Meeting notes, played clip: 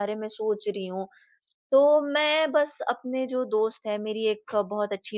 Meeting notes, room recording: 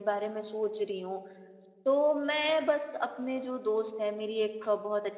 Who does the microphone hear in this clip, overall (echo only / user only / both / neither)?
echo only